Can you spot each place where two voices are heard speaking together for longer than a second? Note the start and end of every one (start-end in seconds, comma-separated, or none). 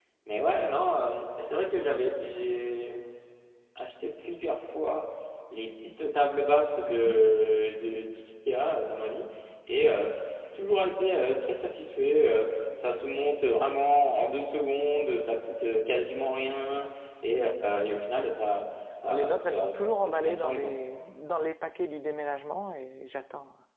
19.1-20.7